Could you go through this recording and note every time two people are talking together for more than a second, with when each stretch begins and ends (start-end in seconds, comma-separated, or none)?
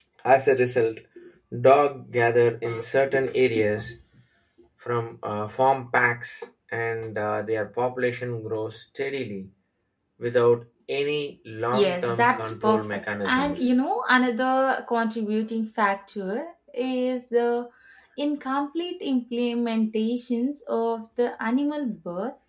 11.7-13.7